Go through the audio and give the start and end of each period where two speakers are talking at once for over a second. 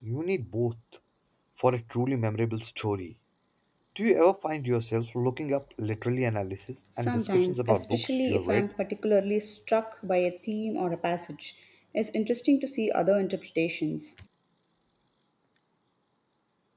7.0-8.7

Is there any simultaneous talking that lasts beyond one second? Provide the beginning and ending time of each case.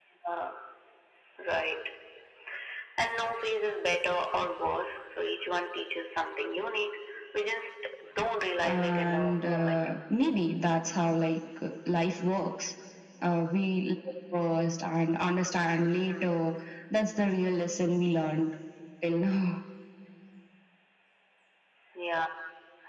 8.6-9.9

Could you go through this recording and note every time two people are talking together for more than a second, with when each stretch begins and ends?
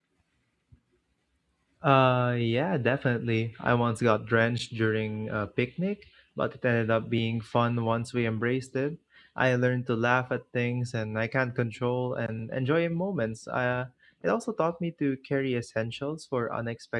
none

